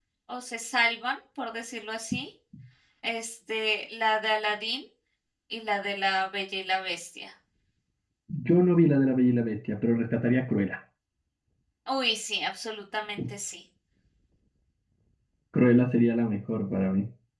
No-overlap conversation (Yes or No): Yes